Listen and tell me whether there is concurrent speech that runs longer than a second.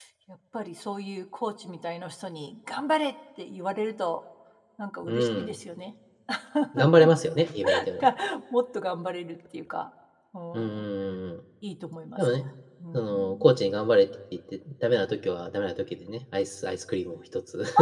No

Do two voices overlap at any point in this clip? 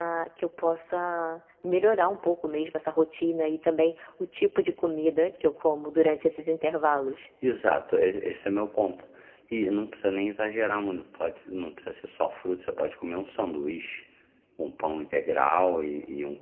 No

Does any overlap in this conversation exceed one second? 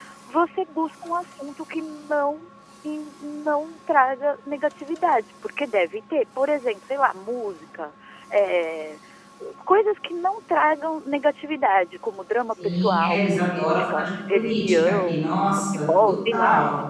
Yes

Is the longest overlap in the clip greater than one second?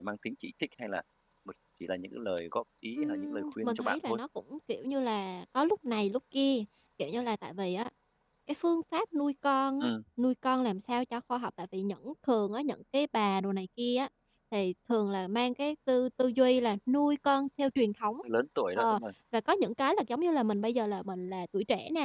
Yes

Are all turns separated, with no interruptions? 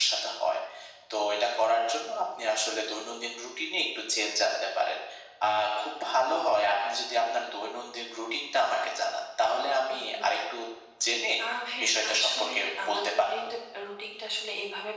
No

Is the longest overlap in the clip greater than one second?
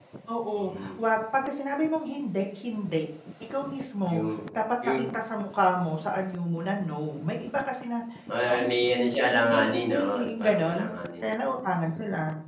Yes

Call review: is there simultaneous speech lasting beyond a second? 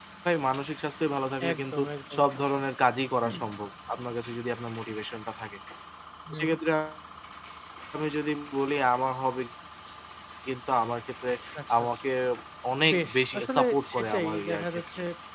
Yes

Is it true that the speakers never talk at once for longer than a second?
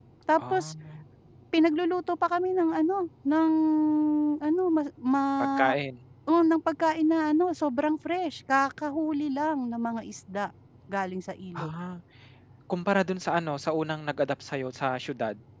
Yes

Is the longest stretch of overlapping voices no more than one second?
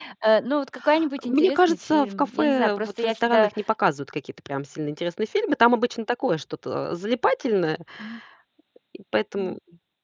No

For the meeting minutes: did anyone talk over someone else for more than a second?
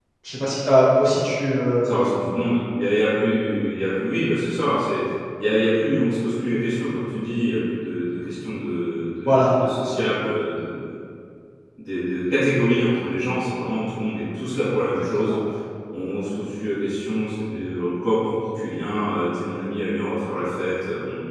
No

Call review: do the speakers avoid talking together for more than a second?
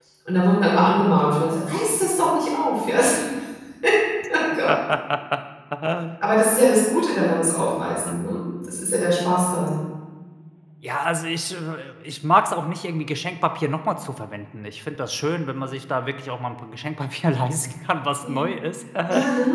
Yes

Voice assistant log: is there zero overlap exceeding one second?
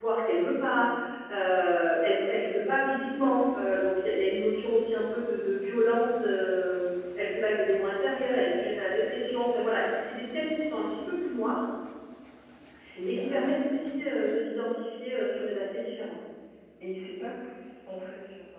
Yes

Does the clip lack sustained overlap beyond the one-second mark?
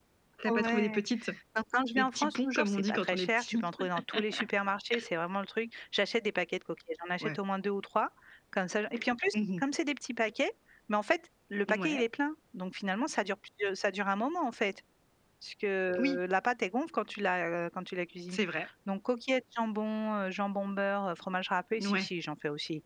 No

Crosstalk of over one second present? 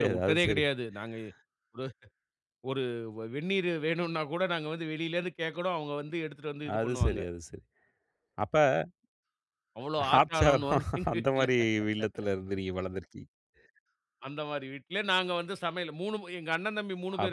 Yes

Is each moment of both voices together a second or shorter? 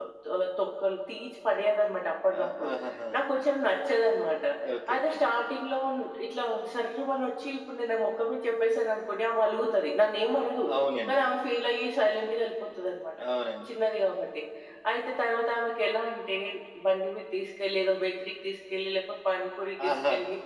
Yes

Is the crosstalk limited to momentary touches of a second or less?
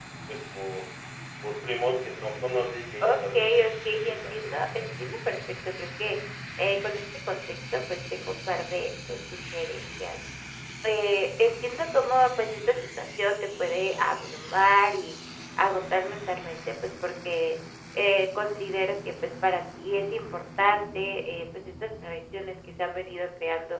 No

